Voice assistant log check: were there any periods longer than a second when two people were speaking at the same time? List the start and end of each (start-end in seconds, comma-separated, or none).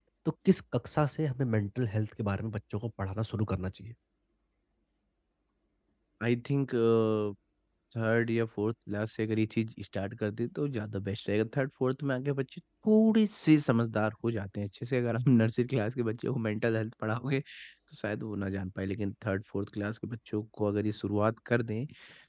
none